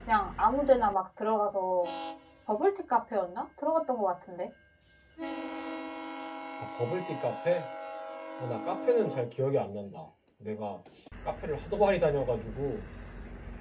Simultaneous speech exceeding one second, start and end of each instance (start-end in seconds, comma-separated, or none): none